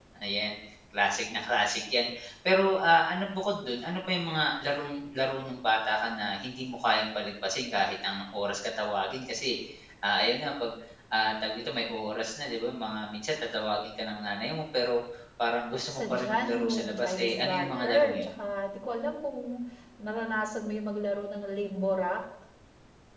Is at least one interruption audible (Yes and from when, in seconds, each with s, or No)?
Yes, from 15.9 s